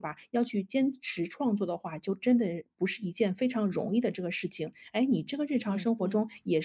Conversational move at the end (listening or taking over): listening